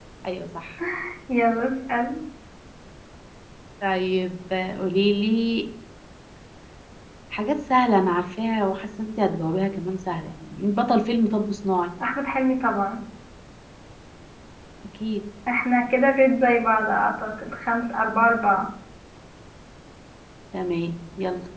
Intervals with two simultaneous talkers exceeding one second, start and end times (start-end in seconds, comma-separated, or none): none